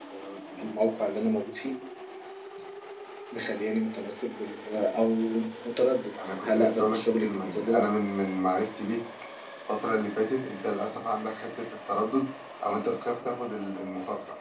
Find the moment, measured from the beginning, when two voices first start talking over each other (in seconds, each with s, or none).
6.4 s